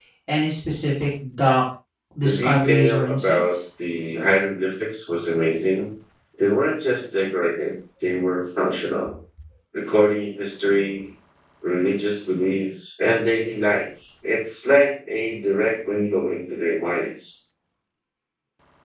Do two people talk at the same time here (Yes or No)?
Yes